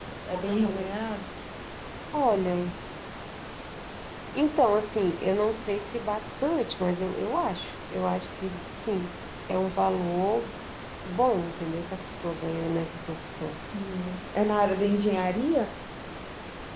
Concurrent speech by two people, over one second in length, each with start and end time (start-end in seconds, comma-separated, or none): none